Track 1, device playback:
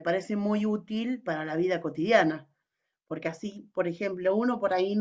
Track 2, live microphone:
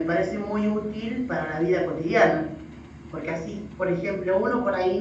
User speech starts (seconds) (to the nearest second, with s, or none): none